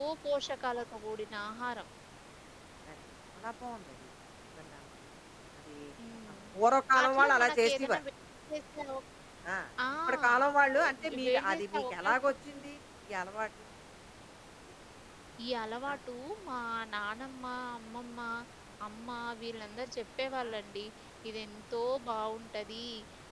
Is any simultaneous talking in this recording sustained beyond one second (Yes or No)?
Yes